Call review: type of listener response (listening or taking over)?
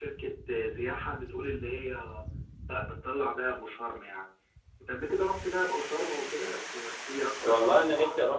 taking over